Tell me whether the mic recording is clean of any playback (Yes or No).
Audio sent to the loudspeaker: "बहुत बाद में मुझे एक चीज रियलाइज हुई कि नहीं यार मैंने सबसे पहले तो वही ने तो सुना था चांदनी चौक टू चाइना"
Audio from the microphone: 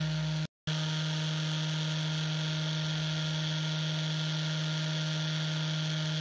Yes